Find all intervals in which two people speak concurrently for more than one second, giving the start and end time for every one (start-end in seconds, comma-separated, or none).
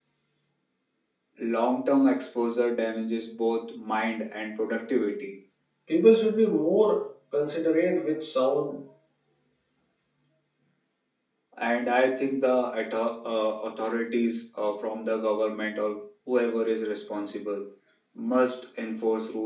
none